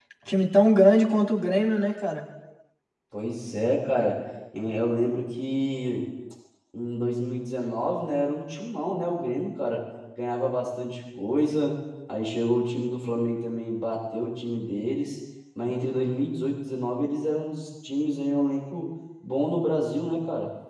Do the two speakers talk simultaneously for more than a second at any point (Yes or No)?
No